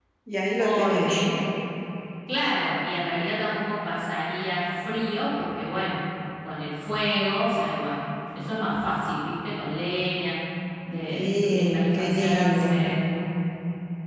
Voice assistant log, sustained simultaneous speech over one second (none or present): present